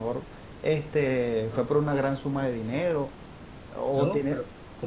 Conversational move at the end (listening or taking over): taking over